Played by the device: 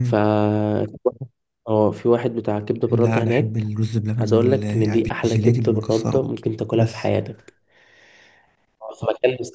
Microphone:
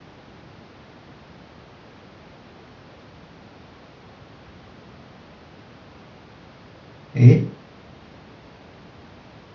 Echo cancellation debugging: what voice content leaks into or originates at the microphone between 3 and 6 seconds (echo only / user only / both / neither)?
neither